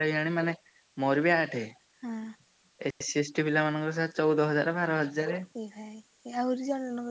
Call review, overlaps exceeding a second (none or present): none